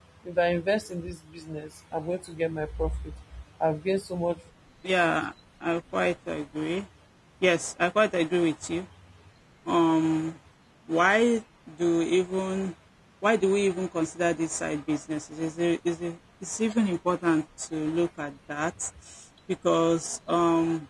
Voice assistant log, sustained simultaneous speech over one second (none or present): none